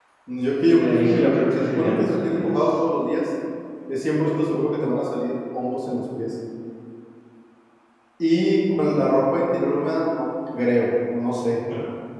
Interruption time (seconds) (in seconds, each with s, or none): 0.7 s